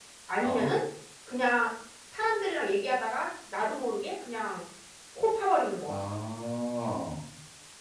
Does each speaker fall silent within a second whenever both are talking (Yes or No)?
Yes